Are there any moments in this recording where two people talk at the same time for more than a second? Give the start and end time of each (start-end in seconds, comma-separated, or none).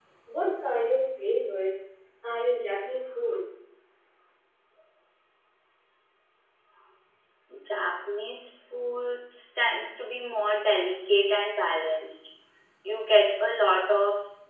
none